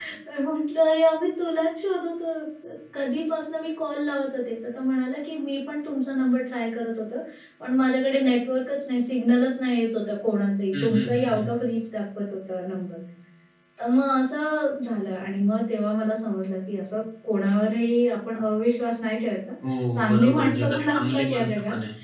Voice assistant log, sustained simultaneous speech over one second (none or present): present